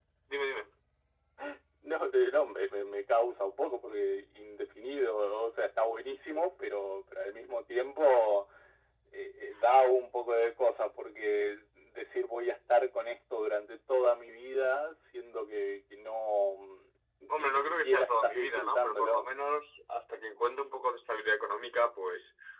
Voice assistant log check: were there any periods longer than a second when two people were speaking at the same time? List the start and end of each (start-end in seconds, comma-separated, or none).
17.4-19.3